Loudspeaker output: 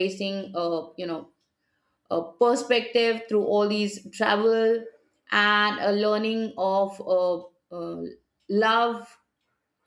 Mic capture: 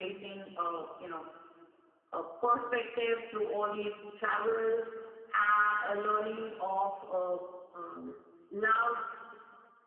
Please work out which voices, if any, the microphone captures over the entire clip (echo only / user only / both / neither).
echo only